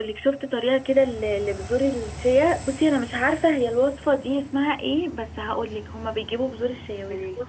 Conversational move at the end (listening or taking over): listening